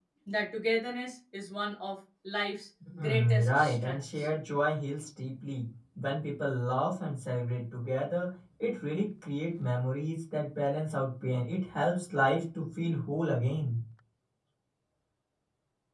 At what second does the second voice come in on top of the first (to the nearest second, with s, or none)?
3 s